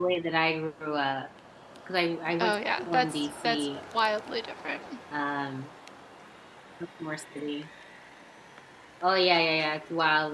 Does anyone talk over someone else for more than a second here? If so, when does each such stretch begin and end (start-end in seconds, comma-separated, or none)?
2.4-3.7